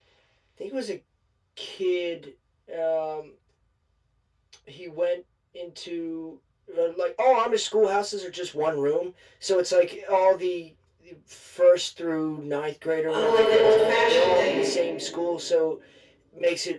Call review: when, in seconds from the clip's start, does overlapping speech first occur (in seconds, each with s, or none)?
13.1 s